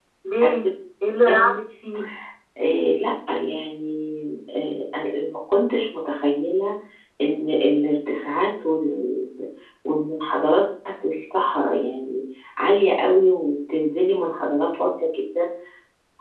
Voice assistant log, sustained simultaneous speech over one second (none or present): none